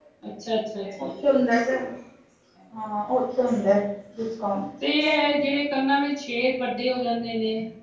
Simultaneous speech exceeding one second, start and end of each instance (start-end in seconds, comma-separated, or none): none